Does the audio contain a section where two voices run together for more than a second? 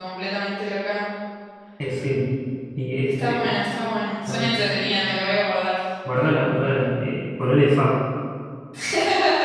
No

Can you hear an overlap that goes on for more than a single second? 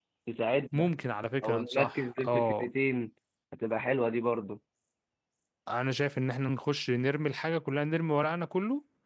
Yes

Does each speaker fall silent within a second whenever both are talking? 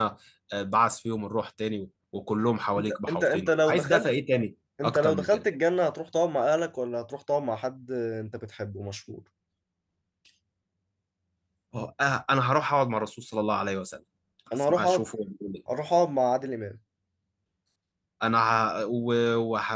No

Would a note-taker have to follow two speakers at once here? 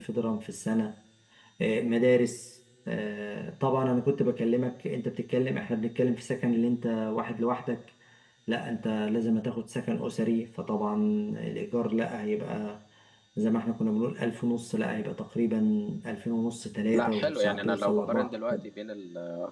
Yes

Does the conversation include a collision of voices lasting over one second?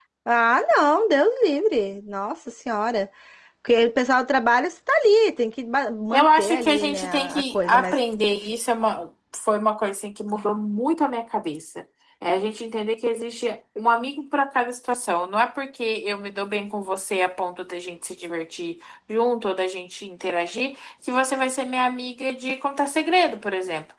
Yes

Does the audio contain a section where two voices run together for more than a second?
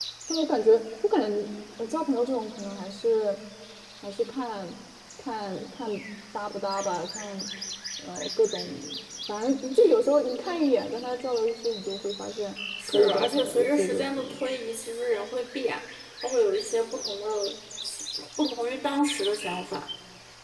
Yes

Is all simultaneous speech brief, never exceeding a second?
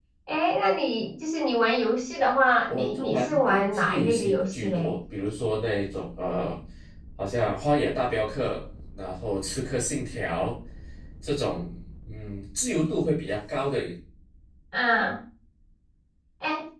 No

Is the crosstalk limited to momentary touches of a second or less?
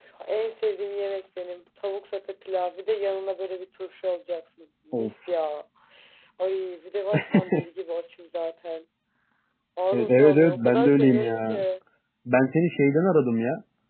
No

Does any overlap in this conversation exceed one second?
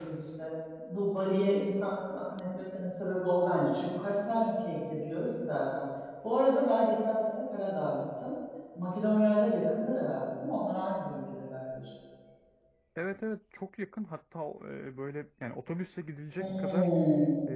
No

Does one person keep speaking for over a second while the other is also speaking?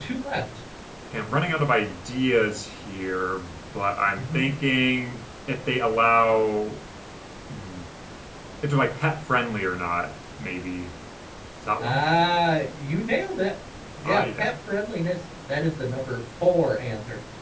No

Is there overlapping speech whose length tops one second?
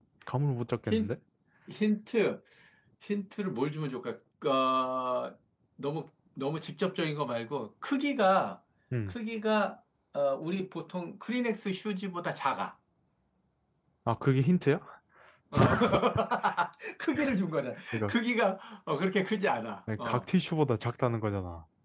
No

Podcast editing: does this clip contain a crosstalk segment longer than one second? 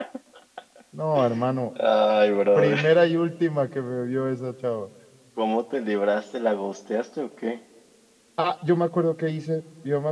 No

